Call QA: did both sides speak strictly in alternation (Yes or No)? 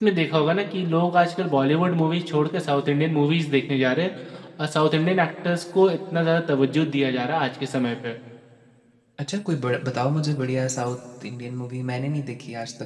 Yes